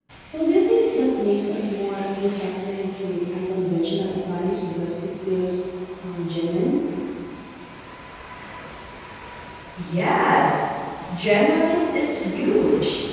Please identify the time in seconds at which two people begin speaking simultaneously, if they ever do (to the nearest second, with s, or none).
none